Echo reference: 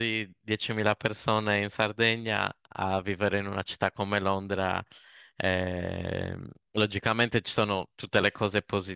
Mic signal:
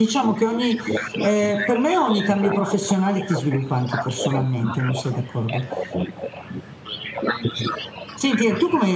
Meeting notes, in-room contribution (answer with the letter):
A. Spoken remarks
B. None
A